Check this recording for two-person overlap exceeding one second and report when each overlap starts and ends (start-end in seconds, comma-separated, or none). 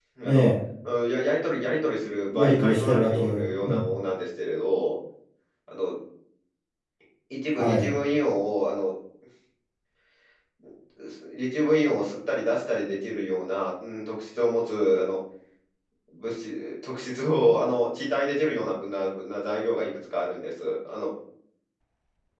2.3-3.8